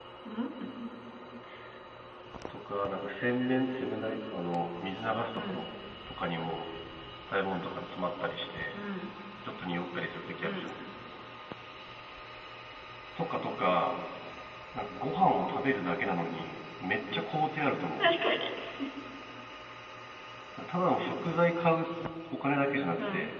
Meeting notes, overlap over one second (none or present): none